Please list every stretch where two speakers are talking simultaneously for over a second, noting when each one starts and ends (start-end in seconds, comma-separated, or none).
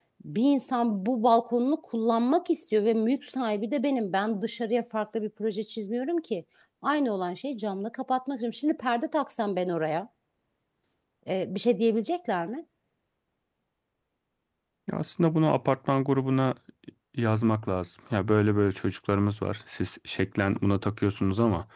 none